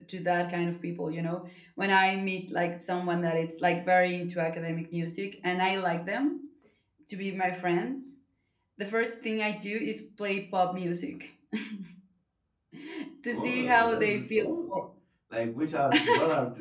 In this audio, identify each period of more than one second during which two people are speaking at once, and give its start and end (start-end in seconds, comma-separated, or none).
13.3-14.5